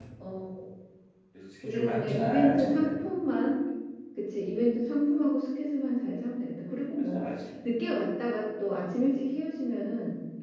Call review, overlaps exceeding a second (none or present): present